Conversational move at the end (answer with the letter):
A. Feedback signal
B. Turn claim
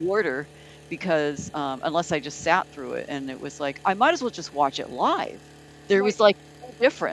A